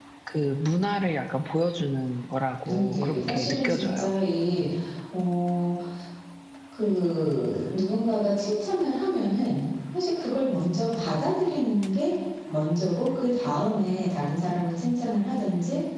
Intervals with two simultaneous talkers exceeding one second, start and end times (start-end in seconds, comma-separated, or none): 2.6-4.2